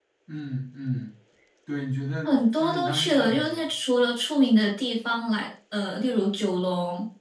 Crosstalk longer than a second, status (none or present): present